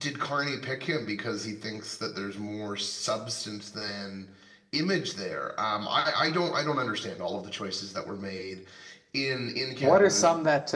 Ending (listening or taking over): taking over